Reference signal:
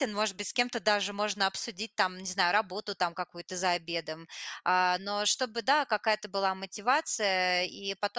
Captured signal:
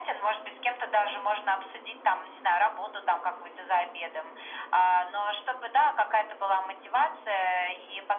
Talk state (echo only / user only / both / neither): echo only